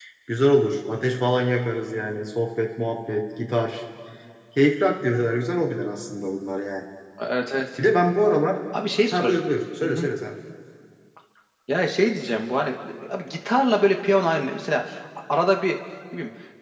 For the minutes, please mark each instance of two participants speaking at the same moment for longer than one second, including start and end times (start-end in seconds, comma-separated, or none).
none